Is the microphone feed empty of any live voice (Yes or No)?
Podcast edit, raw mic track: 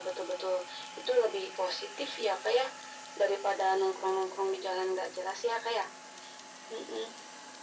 Yes